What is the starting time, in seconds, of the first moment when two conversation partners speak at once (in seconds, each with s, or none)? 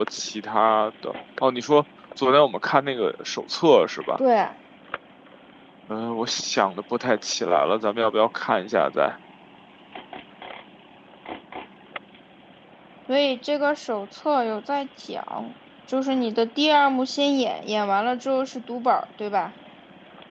none